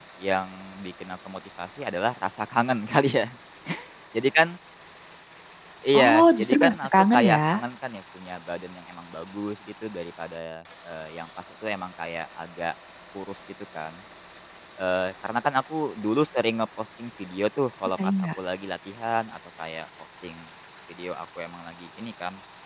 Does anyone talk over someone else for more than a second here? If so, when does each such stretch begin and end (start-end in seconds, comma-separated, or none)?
6.0-7.6